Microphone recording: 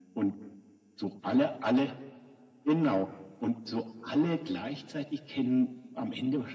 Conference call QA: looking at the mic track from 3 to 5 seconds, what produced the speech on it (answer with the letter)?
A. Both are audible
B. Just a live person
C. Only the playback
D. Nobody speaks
C